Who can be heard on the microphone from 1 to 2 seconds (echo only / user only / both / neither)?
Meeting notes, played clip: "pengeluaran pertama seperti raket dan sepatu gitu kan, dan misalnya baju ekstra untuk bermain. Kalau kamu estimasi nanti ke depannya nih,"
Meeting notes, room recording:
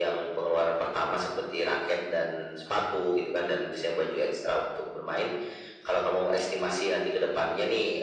echo only